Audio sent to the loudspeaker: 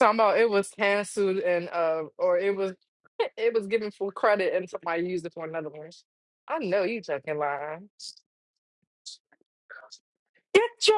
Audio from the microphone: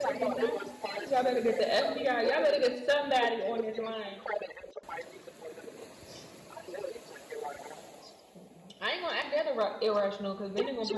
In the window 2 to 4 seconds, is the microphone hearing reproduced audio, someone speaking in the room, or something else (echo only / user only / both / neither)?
both